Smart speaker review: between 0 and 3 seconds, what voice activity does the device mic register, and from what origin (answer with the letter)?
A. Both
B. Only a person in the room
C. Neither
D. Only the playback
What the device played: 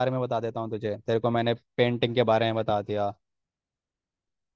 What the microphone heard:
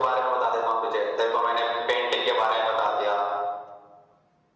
D